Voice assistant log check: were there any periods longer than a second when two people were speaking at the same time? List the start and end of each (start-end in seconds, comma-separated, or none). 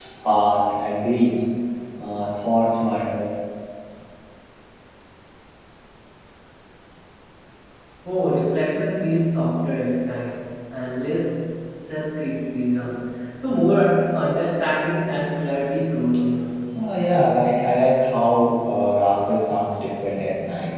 none